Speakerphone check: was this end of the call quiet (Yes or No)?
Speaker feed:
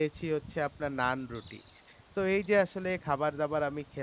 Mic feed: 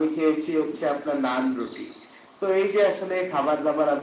Yes